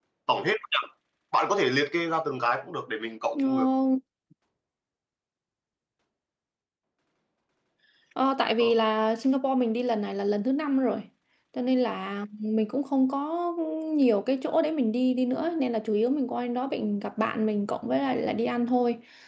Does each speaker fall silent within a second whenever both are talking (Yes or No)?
Yes